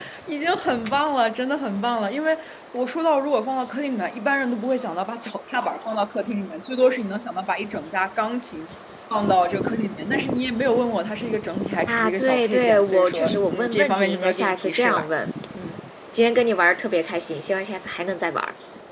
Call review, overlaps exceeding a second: present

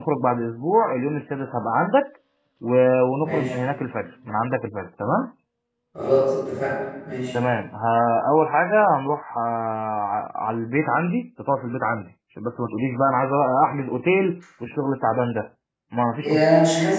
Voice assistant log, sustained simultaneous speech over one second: none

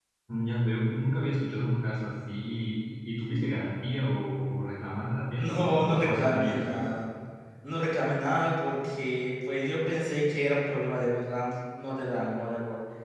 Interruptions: present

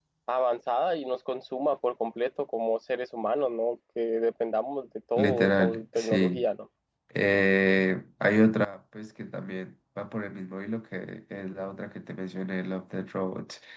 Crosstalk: present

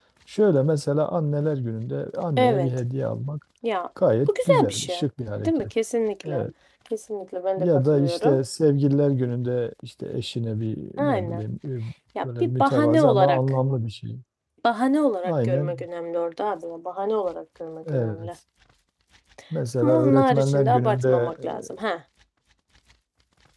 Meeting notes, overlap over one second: present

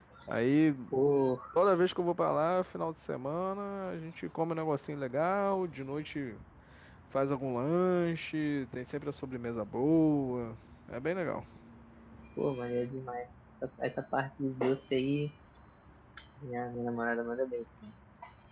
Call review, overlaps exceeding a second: none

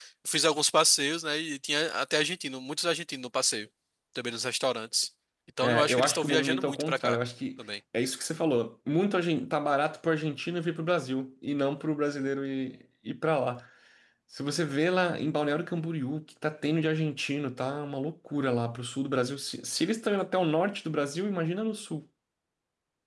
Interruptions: present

